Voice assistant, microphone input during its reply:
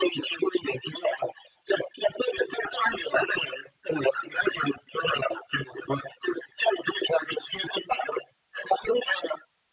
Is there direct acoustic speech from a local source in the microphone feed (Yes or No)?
No